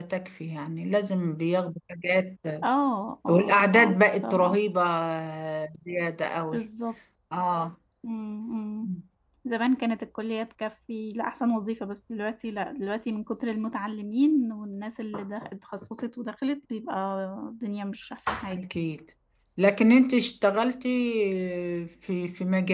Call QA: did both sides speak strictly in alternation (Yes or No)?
No